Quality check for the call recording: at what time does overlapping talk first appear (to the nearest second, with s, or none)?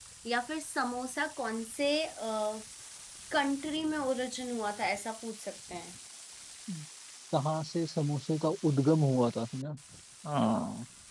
none